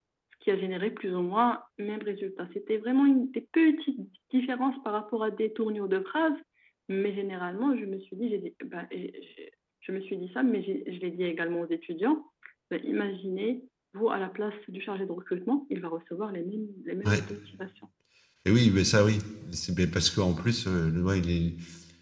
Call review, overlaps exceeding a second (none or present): none